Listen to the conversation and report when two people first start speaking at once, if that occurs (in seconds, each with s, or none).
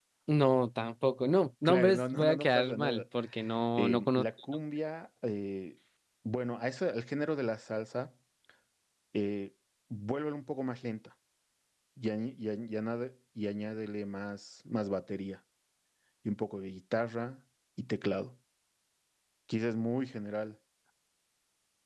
1.6 s